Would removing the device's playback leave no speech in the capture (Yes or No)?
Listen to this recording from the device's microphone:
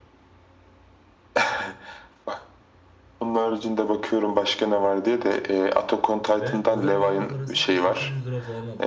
No